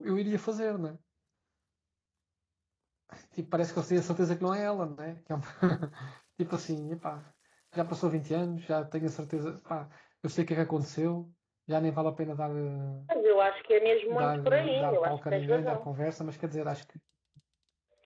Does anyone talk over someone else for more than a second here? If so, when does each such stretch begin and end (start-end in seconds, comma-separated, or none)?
14.2-15.9